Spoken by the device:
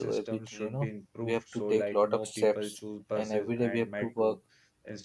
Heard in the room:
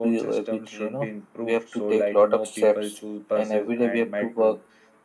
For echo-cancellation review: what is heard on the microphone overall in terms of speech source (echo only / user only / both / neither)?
echo only